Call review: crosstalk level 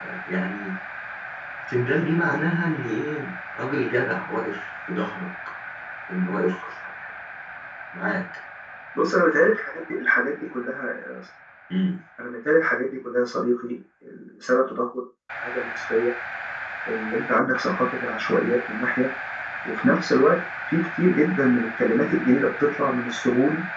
none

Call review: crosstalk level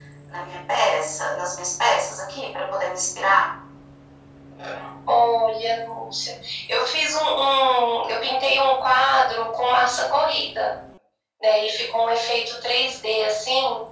none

